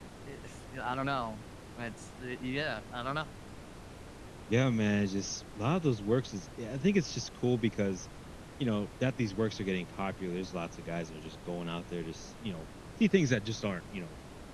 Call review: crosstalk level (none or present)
none